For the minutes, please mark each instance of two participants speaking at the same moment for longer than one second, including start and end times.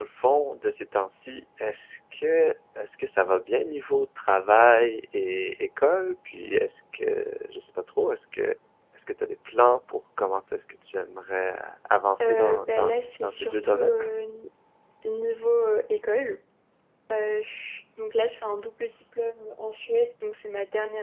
12.2-13.9

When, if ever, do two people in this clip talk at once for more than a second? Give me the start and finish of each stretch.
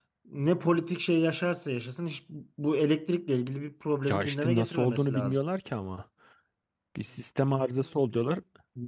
4.0-5.4

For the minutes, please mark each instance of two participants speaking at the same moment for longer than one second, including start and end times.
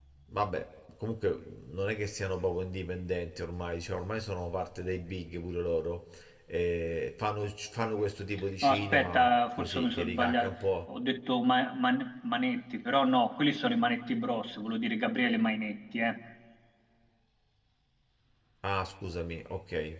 8.6-10.6

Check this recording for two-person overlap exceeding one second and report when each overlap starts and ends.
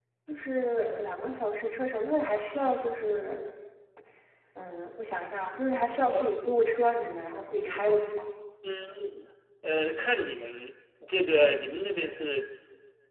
none

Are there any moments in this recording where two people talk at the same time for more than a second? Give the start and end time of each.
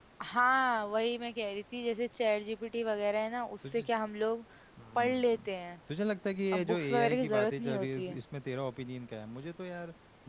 6.5-8.1

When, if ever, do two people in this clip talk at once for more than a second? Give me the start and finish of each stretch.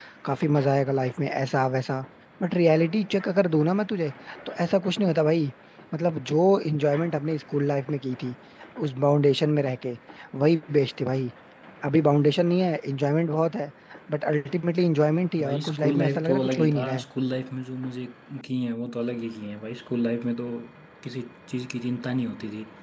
15.4-17.0

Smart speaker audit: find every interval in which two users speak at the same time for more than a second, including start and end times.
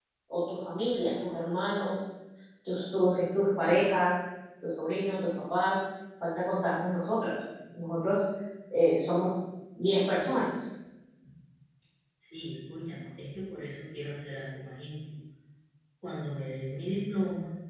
none

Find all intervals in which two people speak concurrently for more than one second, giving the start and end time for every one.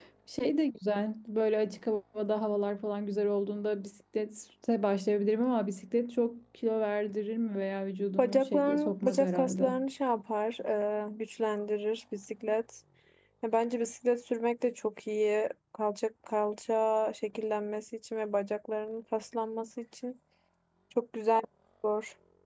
8.2-9.7

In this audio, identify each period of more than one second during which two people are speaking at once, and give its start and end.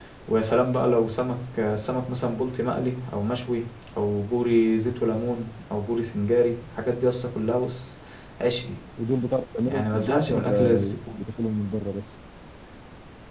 9.7-11.2

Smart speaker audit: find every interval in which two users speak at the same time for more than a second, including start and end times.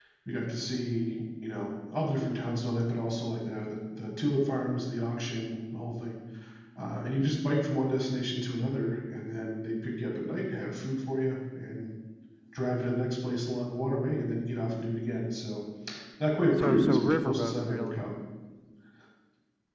16.6-18.1

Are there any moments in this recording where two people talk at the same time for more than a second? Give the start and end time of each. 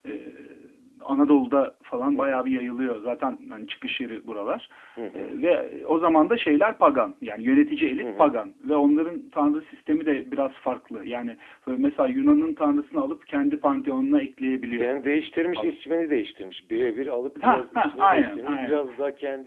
17.4-18.8

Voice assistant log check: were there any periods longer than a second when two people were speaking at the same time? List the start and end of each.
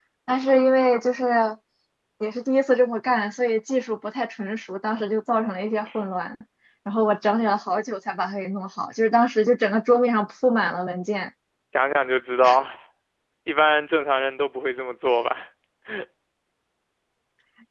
none

